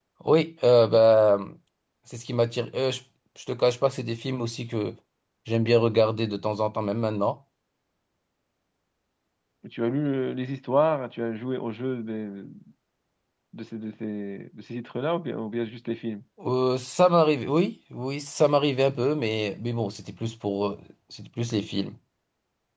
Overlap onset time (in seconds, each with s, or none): none